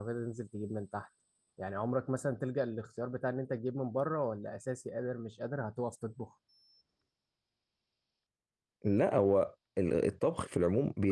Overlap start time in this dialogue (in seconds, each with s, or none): none